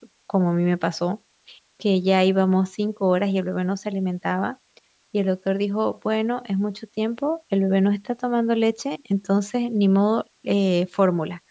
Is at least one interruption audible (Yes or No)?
No